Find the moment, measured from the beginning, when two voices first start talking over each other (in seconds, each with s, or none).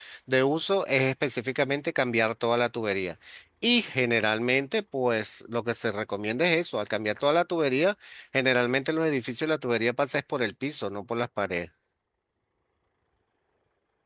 none